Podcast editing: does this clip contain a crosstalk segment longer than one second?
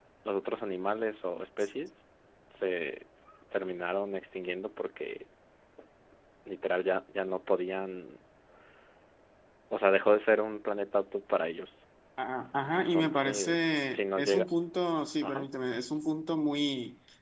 Yes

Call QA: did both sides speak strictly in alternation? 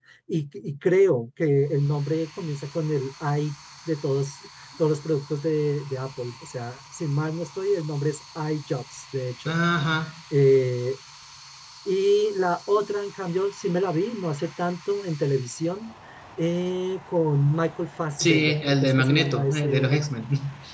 No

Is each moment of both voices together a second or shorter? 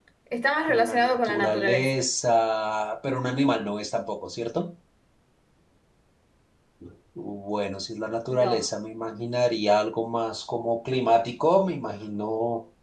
No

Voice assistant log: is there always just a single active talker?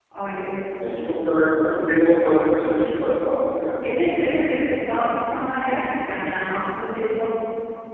Yes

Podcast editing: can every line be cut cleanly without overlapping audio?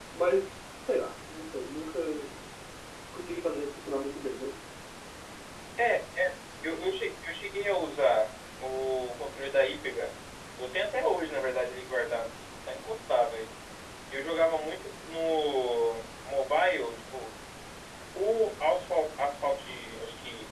Yes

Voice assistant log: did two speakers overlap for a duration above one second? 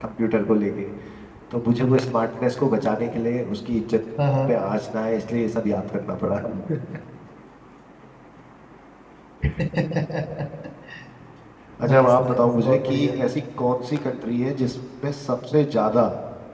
Yes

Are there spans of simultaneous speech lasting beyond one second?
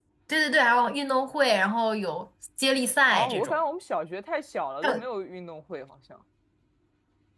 No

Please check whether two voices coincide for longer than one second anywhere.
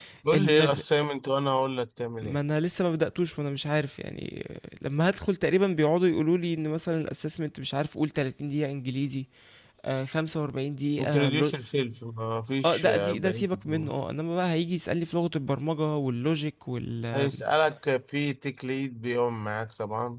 Yes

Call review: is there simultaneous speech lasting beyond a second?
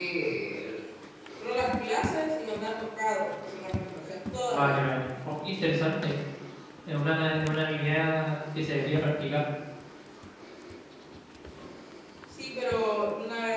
No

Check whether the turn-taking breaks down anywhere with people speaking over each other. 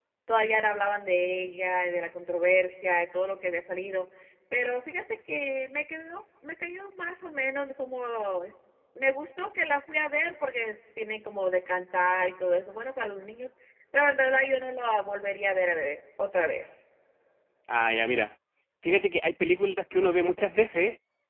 No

